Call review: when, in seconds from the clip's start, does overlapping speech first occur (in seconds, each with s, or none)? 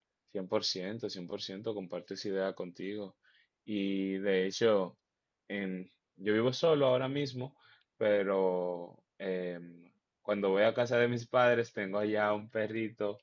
none